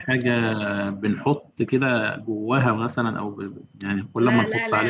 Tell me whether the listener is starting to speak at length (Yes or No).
Yes